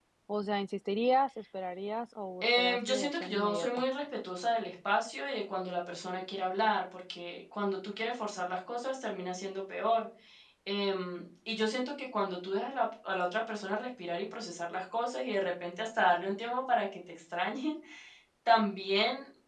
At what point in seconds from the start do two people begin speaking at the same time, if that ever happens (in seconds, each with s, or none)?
2.4 s